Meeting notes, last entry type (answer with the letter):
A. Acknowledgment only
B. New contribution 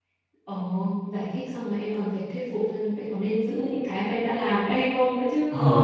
B